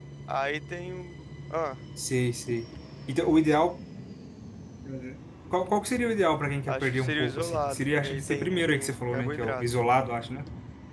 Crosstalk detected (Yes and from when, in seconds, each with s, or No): Yes, from 6.7 s